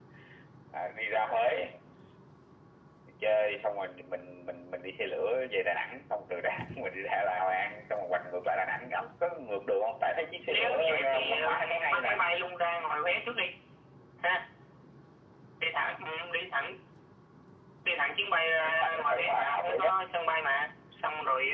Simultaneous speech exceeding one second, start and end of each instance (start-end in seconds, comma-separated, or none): 10.5-12.2, 18.6-19.9